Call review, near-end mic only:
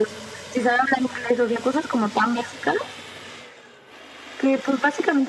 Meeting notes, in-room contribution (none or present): none